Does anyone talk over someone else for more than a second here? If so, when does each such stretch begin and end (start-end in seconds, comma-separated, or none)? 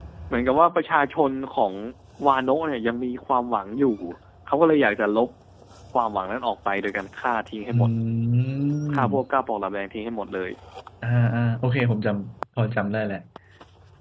none